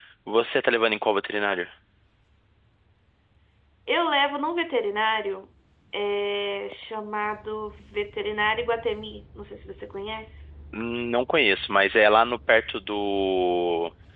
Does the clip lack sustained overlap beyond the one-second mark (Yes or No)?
Yes